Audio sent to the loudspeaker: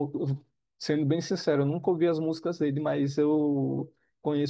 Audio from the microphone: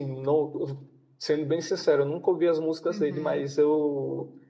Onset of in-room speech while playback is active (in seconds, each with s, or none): 2.9 s